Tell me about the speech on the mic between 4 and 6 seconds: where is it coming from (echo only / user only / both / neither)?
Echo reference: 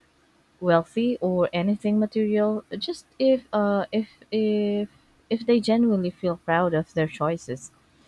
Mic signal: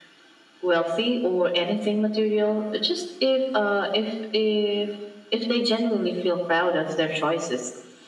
echo only